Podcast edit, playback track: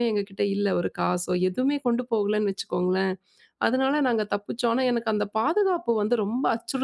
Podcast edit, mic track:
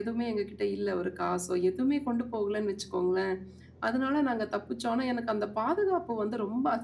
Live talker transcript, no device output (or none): none